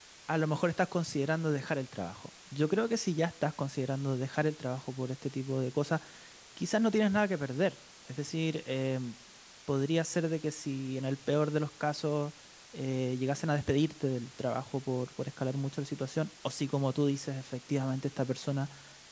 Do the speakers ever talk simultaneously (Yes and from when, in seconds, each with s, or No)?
No